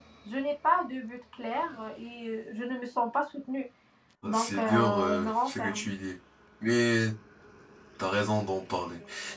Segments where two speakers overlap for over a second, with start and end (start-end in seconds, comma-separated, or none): 4.2-5.9